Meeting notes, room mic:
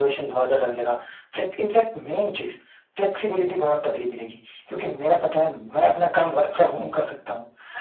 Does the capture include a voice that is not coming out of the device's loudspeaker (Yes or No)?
No